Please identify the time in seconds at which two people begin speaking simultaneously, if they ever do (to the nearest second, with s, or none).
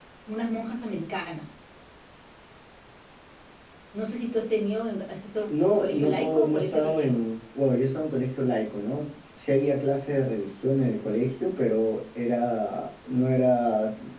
5 s